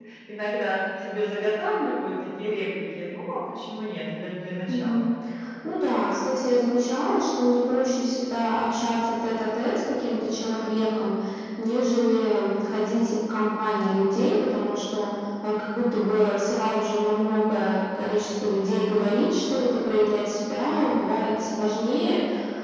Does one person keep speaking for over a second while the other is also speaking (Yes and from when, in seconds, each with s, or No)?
No